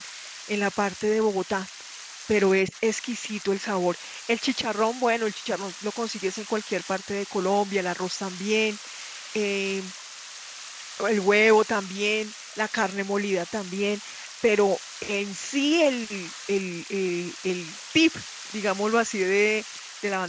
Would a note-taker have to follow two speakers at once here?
No

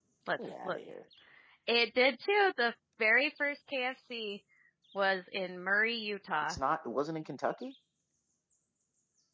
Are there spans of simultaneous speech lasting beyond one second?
No

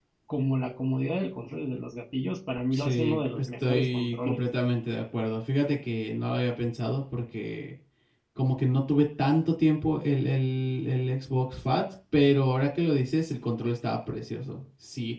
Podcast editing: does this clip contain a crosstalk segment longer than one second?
Yes, from 2.7 s

